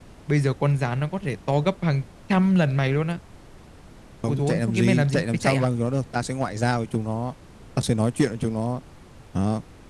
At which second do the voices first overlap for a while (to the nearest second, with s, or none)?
4 s